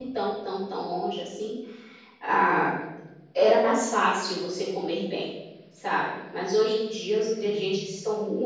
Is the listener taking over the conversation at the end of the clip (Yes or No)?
No